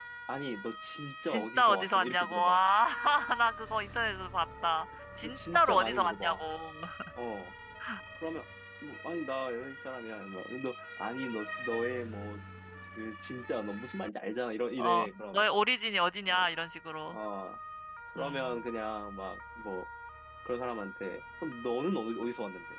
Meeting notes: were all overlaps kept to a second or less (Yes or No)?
No